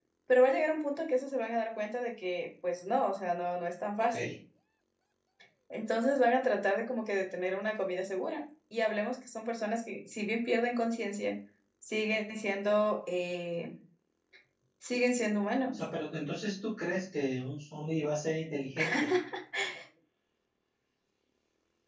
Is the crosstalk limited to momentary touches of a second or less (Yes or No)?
Yes